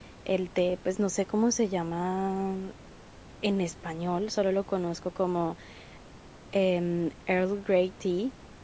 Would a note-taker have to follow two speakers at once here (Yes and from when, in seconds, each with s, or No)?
No